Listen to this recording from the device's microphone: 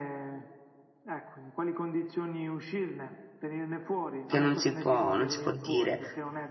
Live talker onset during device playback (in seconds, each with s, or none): 4.2 s